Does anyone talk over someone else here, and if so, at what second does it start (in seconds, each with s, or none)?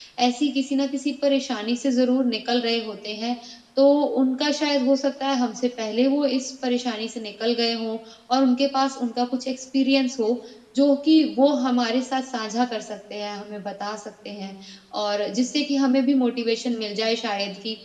none